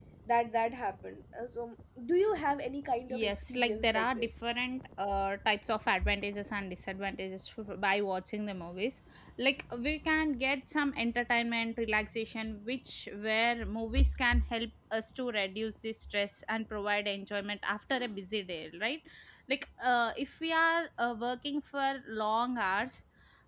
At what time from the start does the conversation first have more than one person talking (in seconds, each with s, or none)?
3.1 s